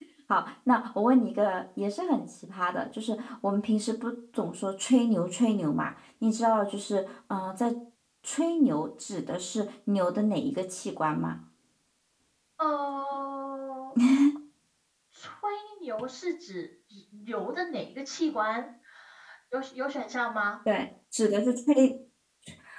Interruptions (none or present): none